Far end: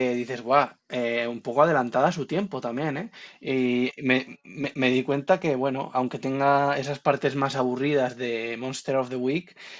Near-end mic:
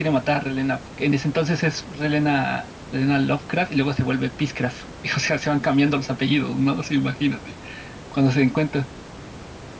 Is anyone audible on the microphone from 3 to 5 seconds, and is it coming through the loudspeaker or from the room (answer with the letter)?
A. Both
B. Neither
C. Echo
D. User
D